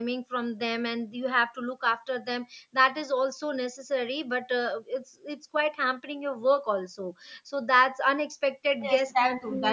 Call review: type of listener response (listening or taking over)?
taking over